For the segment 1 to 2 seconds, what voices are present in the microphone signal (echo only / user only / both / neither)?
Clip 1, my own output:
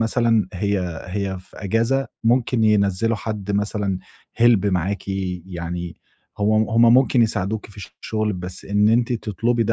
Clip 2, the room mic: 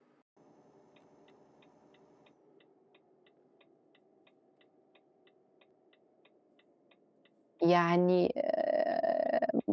neither